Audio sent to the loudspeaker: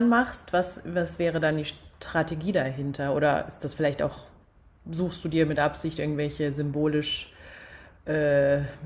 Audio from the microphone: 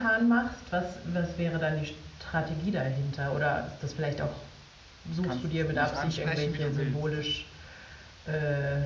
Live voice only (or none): Kannst mich ansprechen, wie du willst.